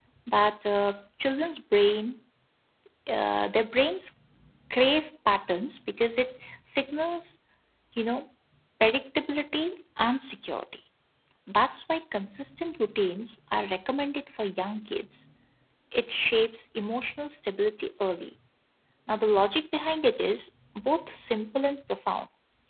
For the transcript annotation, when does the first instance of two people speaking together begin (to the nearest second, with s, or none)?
none